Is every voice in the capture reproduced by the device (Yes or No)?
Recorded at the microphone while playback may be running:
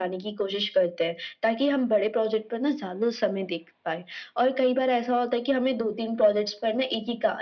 Yes